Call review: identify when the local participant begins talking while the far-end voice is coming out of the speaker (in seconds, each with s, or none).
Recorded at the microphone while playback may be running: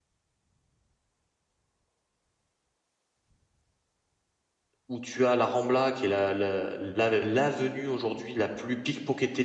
4.9 s